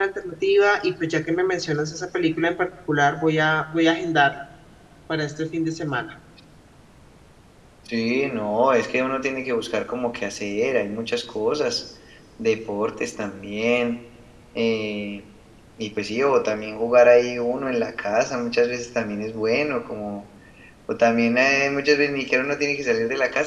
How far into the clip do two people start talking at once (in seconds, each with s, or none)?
none